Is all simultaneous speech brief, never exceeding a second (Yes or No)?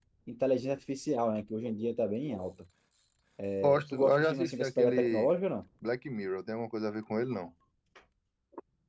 No